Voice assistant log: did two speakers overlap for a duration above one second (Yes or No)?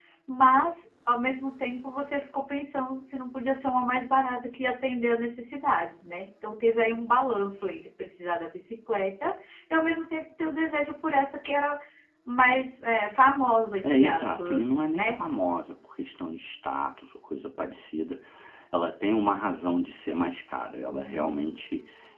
Yes